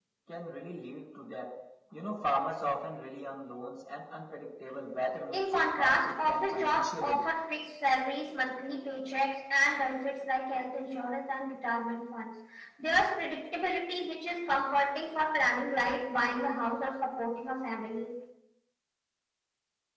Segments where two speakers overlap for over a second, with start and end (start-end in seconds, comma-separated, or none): 5.3-7.2